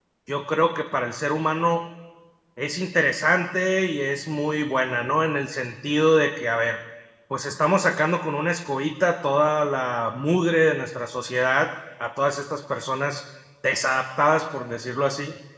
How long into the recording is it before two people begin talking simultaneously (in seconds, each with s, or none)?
none